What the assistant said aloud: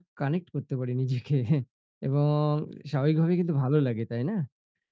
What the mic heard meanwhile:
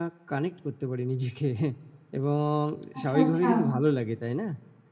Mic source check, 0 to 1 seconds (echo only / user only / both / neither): echo only